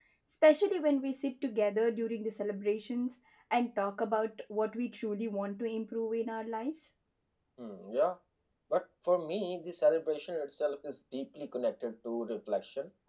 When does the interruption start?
none

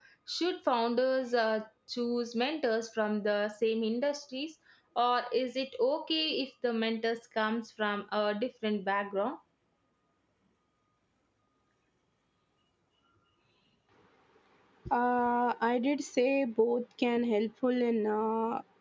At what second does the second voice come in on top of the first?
none

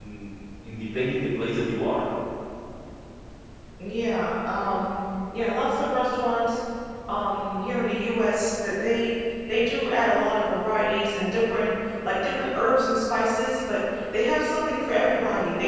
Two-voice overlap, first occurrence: none

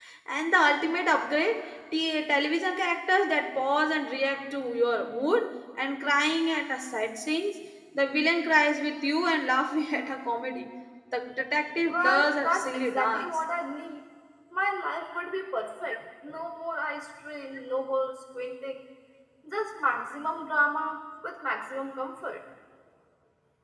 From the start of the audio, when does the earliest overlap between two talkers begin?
11.9 s

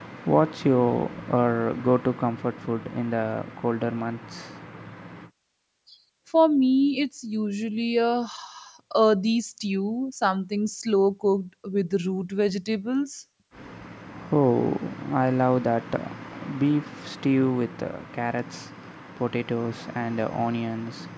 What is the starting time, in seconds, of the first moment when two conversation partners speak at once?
none

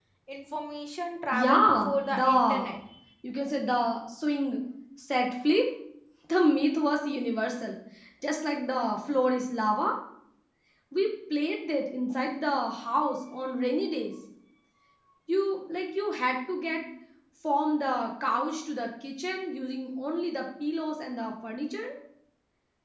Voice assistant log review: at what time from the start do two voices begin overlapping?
1.3 s

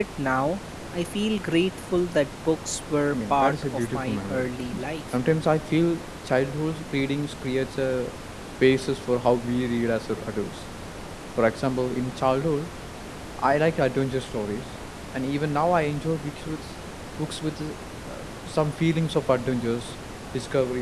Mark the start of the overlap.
3.1 s

